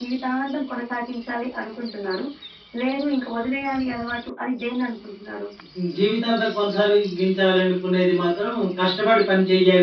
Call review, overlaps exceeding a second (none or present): none